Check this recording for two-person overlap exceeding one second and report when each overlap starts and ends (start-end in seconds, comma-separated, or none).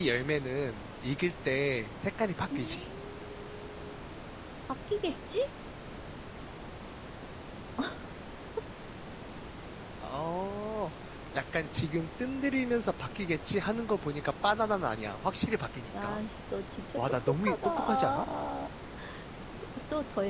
17.0-18.3